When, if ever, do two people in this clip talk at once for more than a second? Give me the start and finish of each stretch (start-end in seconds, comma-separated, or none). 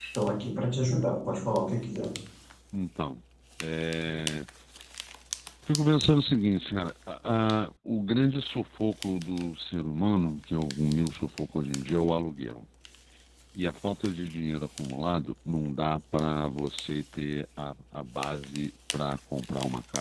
none